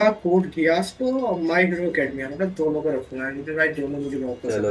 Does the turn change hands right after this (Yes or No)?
Yes